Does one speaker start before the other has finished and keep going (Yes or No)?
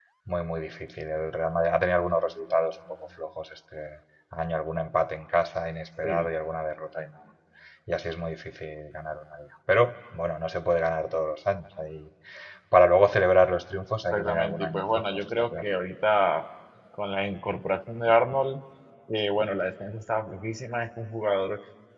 Yes